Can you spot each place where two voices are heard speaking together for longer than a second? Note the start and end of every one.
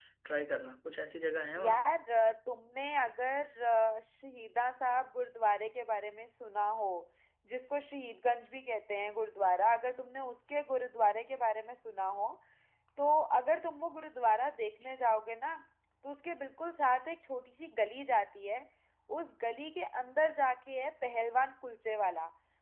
none

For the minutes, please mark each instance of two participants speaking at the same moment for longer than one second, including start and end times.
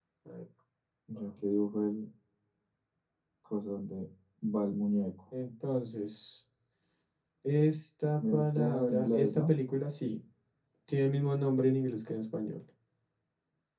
8.3-9.5

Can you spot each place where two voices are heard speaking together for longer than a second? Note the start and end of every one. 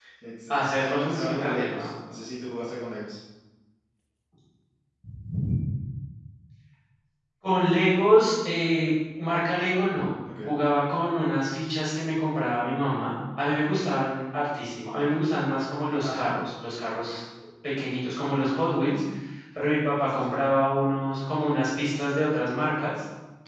0.5-1.9

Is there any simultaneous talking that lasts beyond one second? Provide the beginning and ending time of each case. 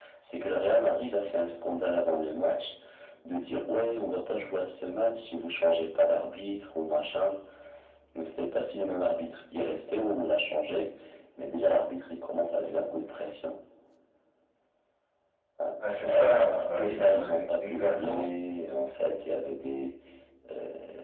16.1-18.2

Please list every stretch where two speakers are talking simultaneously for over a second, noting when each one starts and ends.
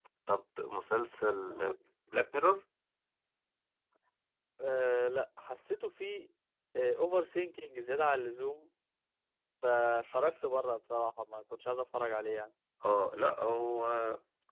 none

